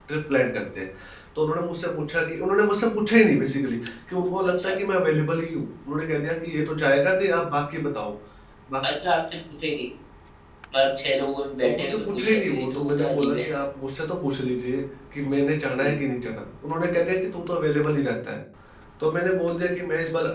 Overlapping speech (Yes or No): Yes